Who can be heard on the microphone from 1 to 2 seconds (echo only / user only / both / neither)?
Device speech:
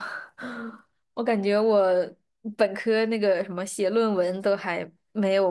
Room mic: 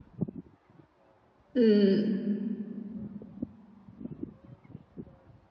user only